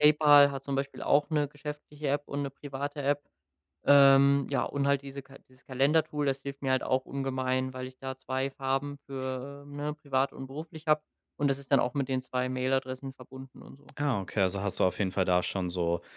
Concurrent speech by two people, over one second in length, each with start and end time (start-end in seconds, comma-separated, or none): none